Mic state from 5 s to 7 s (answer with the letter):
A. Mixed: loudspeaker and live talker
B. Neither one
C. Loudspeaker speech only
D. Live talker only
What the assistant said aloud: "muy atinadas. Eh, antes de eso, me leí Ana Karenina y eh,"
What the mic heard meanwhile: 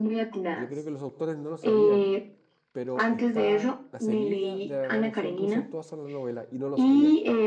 A